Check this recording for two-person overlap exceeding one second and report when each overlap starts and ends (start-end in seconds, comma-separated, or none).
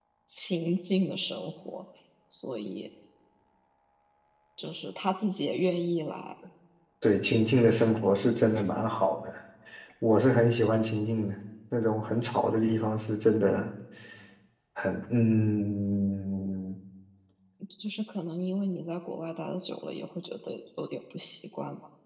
none